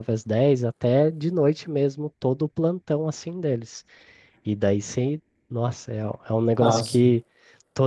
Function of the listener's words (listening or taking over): listening